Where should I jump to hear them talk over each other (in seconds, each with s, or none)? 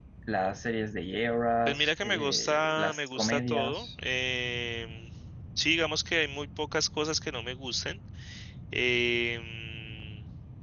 1.7 s